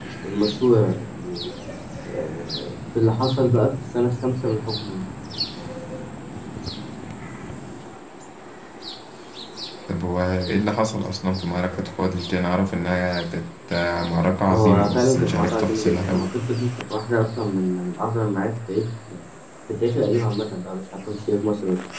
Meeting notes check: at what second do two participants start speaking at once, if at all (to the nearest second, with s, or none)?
14 s